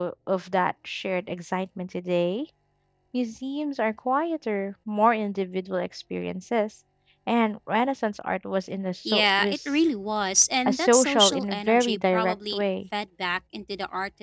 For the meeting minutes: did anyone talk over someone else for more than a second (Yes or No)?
Yes